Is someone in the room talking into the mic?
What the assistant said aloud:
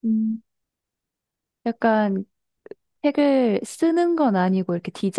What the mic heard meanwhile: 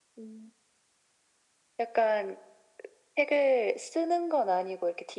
No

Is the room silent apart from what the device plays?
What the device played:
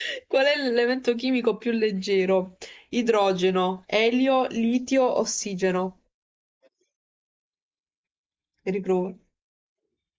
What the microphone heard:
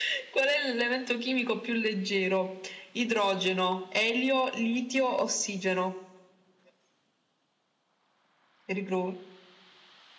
Yes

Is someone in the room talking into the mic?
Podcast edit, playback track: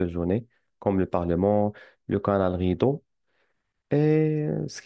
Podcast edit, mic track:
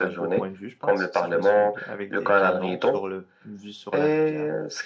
Yes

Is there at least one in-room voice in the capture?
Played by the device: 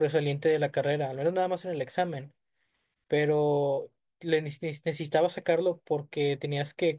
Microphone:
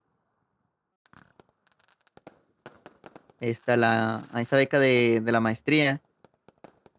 Yes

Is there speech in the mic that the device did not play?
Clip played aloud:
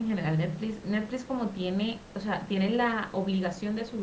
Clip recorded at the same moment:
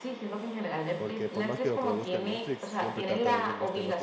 Yes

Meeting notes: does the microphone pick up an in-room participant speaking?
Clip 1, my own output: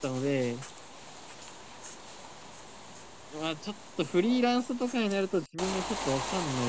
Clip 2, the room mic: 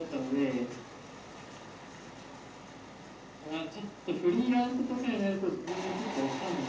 No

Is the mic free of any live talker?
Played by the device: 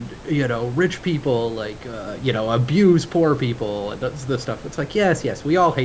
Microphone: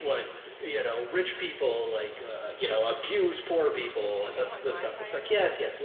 No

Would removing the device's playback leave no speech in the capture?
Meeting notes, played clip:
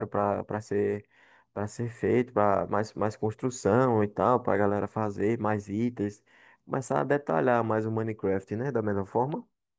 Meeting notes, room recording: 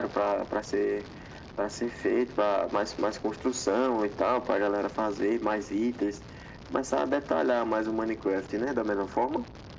Yes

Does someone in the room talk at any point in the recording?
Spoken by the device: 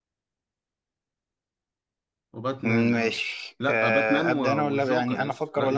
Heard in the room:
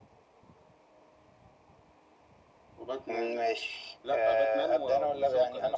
No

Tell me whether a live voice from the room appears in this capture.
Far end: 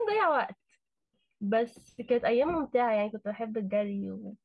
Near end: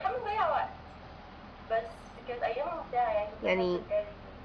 Yes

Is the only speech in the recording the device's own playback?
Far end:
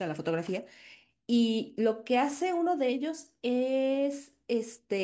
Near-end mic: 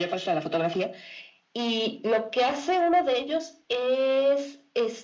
Yes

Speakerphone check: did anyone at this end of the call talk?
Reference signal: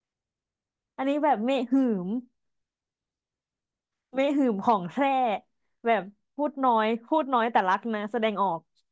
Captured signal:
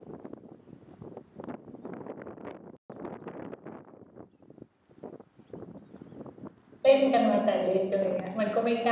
Yes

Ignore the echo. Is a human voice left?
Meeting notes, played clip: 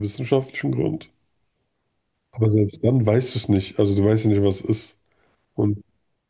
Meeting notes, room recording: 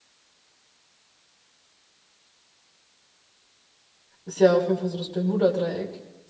Yes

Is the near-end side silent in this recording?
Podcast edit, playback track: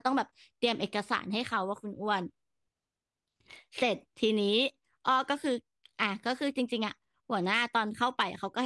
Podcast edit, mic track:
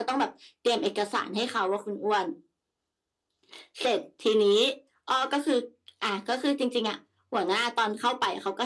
Yes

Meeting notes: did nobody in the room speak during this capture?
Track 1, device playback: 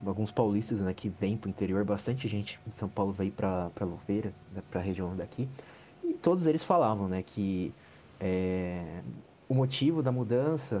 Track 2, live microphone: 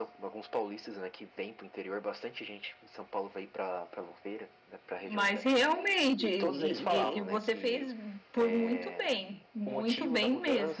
No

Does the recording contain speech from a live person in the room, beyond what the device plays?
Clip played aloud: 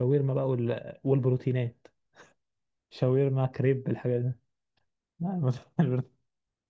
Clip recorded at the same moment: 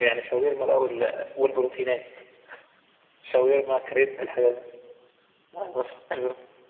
No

